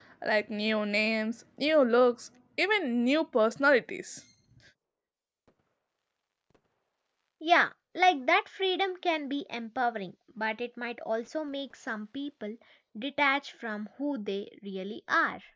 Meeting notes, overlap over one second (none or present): none